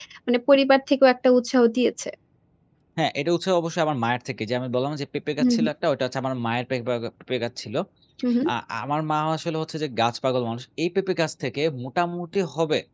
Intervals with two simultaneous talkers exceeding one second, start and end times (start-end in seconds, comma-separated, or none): none